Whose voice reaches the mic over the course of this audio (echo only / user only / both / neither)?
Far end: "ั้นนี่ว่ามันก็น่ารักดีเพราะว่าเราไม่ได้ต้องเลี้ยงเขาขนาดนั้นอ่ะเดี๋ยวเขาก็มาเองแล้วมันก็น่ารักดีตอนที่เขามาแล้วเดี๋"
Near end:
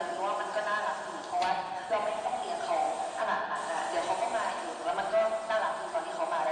echo only